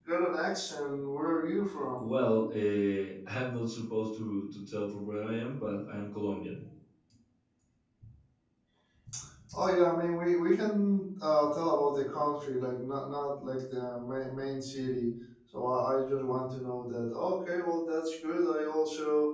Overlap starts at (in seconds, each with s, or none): none